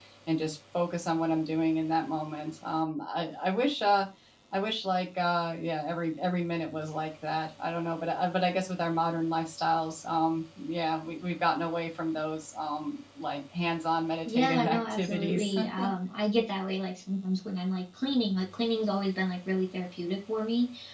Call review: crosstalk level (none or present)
present